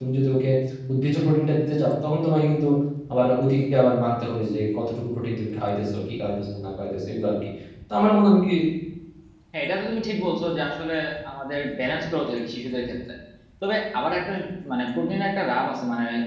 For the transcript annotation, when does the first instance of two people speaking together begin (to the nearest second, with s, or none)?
none